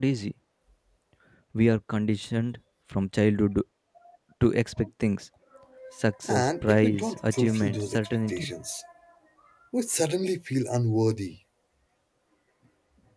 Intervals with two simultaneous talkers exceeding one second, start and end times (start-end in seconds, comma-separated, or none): 6.3-8.5